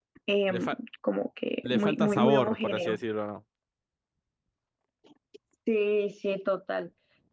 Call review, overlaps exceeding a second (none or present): present